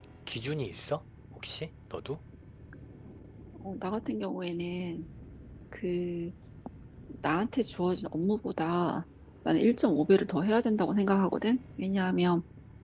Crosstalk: none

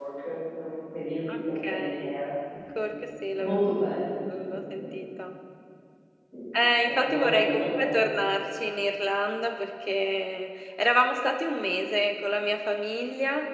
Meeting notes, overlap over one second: present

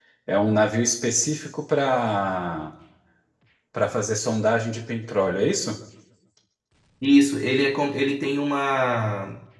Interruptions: none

